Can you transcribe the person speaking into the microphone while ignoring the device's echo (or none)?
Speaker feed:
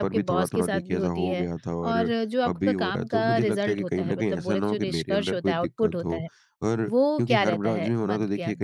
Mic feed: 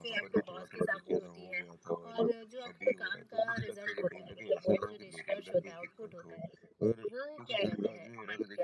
none